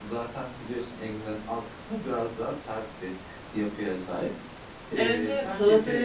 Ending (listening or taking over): taking over